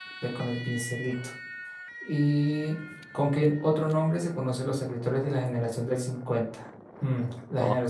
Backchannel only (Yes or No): Yes